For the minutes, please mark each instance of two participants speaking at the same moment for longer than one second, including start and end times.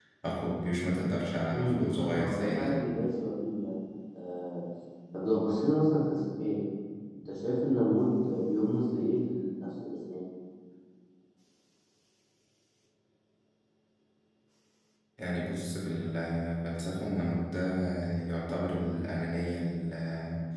1.5-2.8

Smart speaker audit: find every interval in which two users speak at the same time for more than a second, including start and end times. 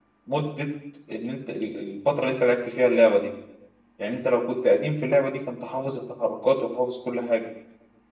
none

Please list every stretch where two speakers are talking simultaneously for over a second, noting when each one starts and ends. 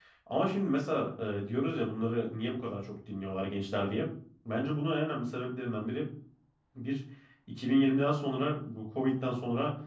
none

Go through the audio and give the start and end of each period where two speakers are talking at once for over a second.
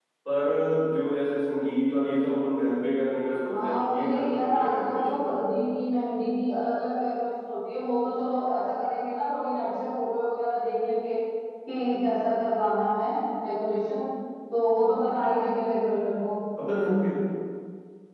3.5-5.3

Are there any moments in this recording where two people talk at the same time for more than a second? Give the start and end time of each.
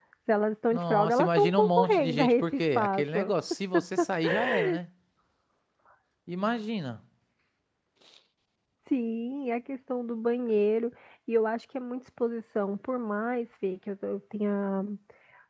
0.7-3.3

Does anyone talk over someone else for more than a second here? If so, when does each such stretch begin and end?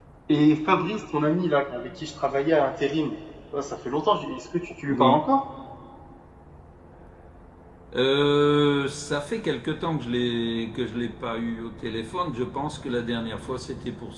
none

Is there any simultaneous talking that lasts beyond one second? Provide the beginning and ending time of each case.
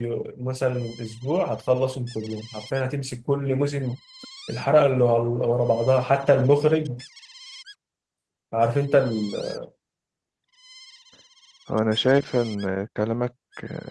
none

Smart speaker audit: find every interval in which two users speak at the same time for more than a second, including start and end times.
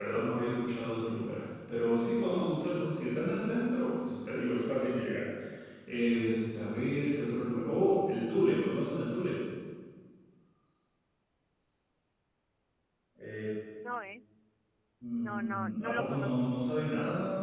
15.1-16.5

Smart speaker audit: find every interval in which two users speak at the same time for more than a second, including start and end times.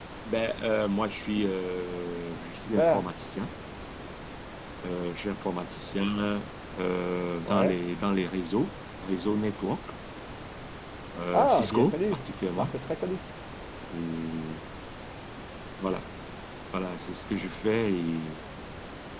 11.3-12.7

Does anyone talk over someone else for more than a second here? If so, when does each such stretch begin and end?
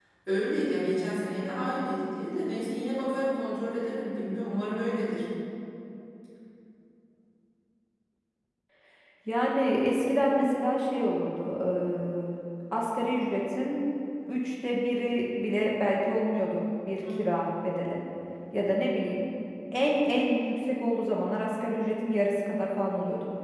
none

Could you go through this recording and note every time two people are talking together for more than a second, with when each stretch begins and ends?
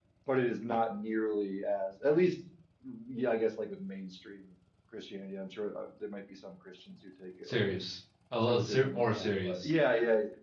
8.5-9.7

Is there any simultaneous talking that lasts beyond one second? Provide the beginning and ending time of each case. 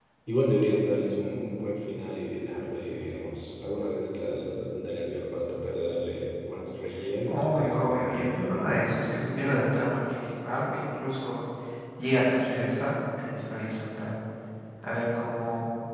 7.3-8.7

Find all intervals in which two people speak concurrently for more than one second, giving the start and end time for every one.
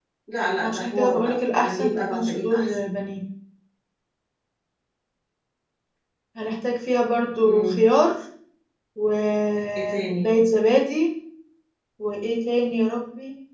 0.6-2.8

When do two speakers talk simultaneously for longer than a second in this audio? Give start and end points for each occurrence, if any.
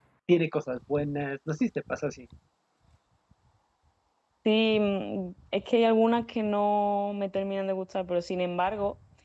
none

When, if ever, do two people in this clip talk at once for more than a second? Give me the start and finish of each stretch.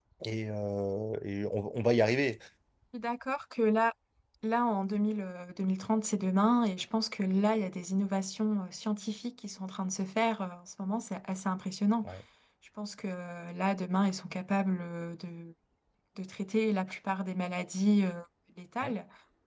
none

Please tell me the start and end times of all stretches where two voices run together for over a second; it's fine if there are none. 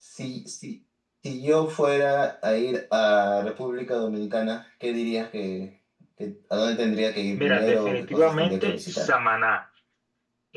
7.4-9.1

